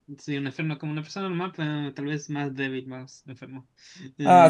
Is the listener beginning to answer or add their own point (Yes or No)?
Yes